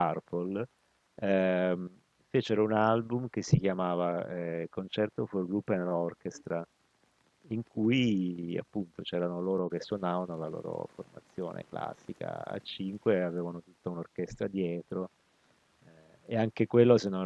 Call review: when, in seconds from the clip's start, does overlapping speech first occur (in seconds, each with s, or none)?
none